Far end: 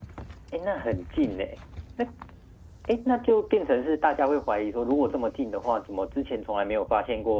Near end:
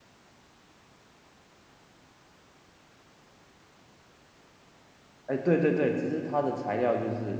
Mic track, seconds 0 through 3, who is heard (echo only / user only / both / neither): neither